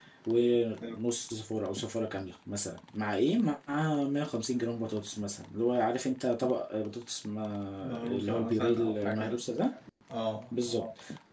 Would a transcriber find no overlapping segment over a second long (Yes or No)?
No